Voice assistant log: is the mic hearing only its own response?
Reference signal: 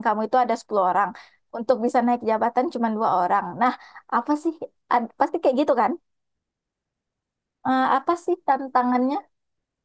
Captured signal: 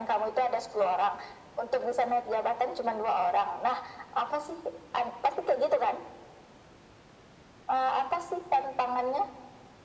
Yes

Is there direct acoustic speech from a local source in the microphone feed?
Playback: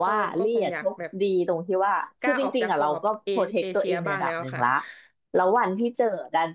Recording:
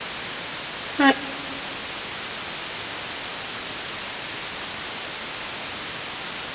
Yes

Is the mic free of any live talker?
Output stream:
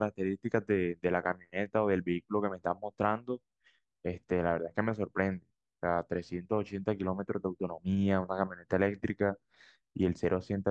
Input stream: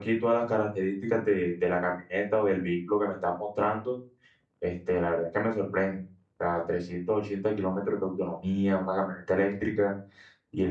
Yes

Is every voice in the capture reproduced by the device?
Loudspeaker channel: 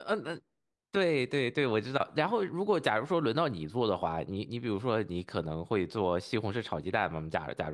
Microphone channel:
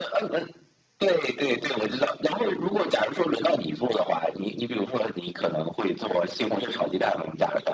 Yes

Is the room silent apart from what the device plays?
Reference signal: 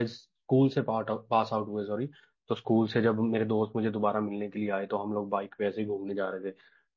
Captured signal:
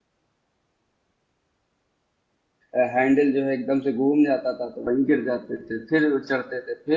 No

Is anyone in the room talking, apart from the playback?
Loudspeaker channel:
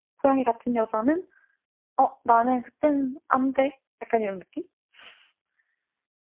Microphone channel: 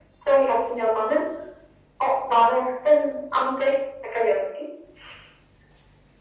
No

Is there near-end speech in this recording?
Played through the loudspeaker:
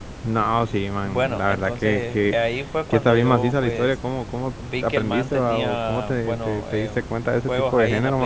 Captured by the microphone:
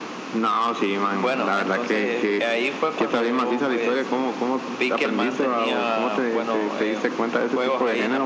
No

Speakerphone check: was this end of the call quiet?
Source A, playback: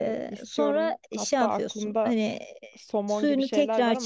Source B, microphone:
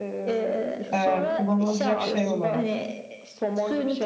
No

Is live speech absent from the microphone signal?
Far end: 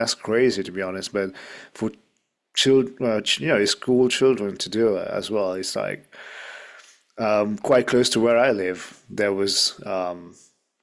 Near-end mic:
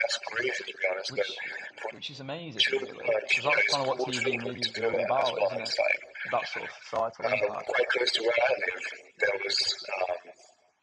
No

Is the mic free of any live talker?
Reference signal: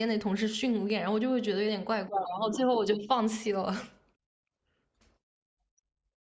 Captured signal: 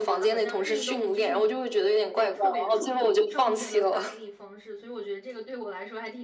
No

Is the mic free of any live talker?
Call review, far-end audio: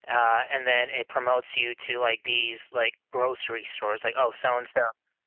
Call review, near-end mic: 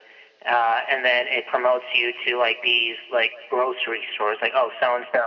Yes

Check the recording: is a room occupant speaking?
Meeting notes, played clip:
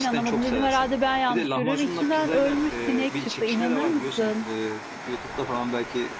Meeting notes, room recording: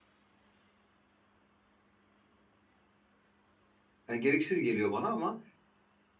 Yes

